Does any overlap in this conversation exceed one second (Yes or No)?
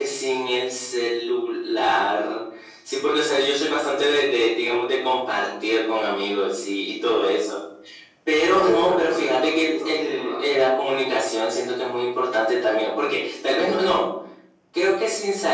Yes